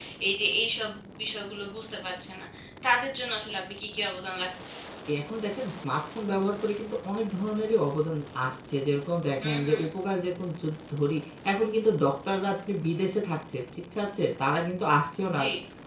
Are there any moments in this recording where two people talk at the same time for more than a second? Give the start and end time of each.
none

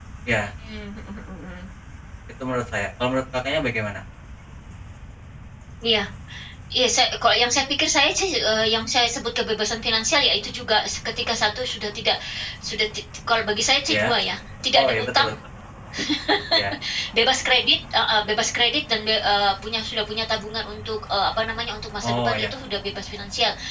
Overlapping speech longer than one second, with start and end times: none

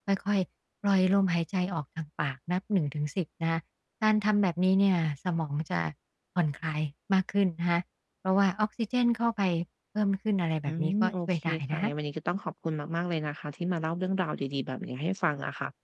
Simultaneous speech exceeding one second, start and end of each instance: 10.7-11.9

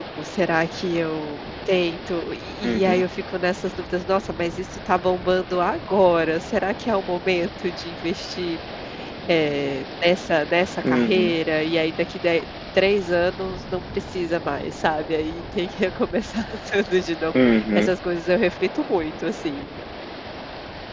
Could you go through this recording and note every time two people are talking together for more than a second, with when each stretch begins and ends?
none

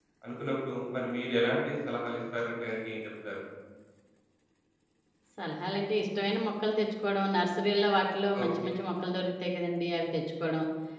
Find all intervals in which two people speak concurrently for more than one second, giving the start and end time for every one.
none

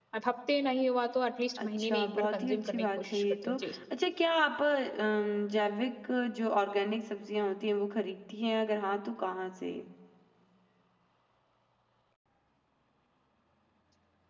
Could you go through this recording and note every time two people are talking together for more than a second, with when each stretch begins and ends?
1.6-3.7

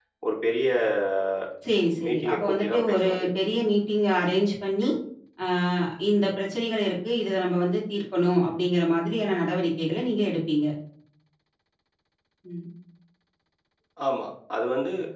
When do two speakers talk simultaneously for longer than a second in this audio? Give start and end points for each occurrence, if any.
2.0-3.3

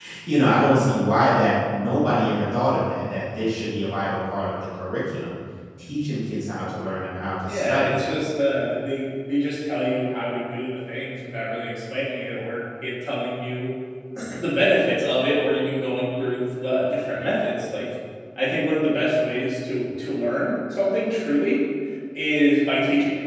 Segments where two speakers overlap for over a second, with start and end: none

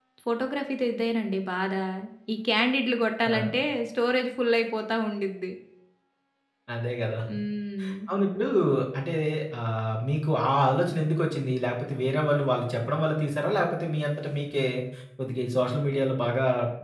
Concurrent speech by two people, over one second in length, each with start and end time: none

